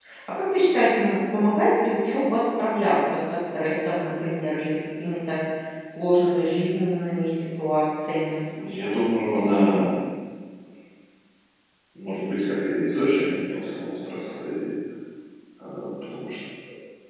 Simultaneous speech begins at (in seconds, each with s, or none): none